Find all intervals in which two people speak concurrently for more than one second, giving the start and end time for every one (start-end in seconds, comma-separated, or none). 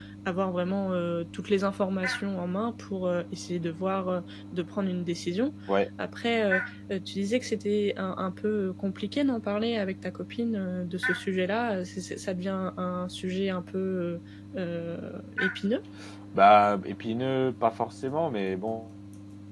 none